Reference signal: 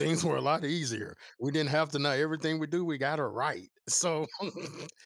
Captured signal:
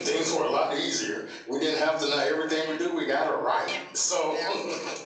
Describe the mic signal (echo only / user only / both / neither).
both